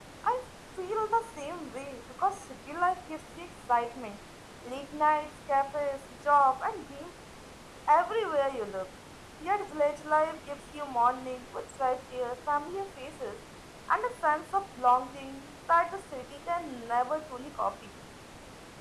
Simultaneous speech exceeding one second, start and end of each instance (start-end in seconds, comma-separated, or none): none